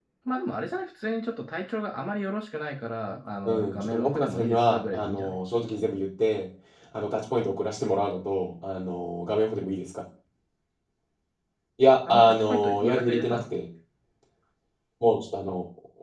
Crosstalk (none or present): present